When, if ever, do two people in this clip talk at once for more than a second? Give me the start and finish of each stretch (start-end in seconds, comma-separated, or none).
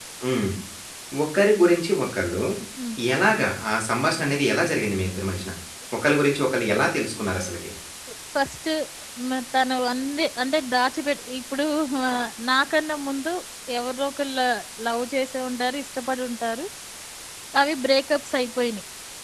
none